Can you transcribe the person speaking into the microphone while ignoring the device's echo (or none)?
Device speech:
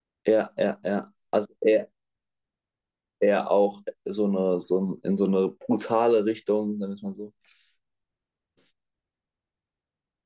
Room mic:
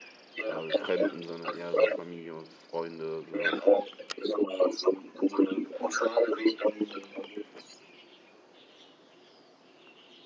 äh, Fremden, sondern eher so Familie und Freunde, sowas.